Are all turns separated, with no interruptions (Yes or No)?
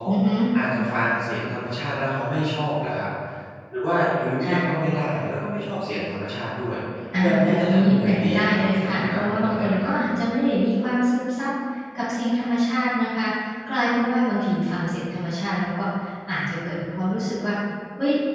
No